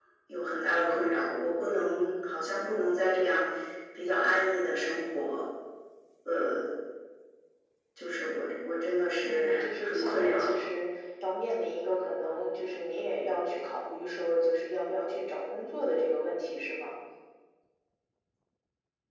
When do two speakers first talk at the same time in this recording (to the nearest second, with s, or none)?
9 s